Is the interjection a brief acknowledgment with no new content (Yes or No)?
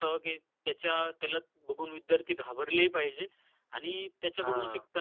Yes